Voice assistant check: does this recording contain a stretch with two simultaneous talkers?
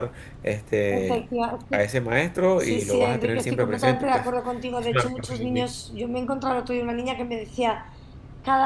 Yes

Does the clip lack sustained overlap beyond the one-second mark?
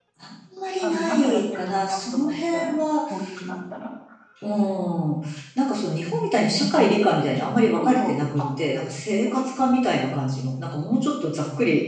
No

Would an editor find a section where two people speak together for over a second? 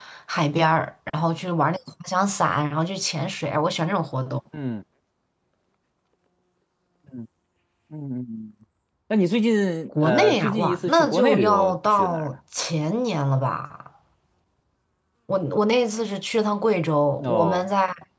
Yes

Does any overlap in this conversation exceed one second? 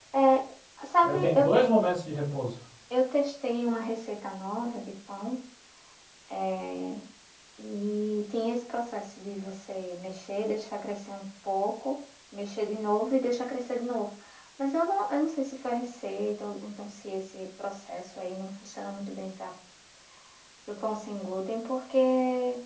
No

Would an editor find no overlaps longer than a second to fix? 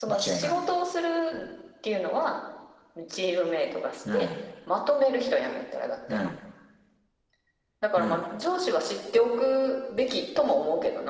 Yes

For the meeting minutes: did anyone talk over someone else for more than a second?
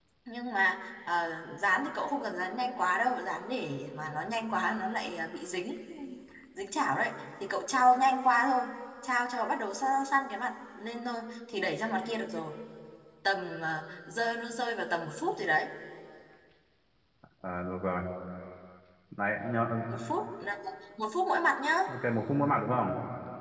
No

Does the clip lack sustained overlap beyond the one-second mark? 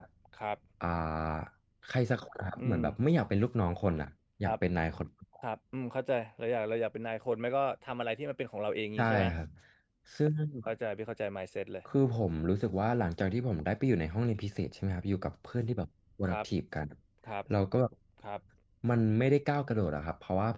Yes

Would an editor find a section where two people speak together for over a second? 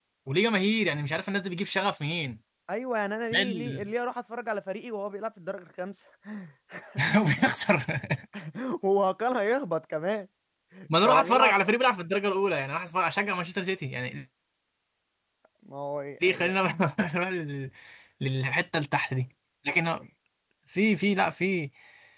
No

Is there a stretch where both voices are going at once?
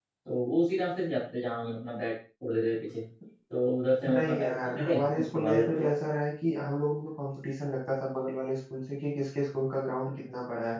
Yes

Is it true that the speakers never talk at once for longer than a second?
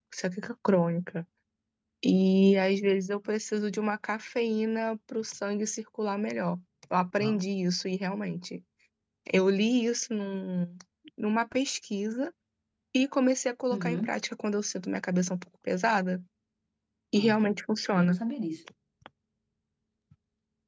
Yes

